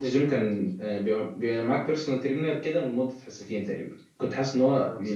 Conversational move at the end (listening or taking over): listening